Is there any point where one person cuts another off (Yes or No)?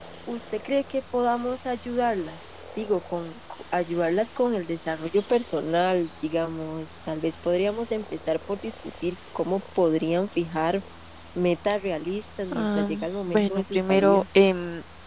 Yes